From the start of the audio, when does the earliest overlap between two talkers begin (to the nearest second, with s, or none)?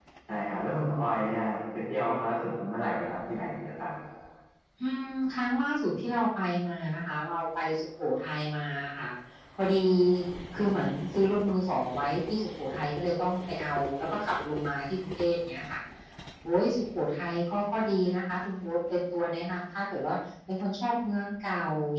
none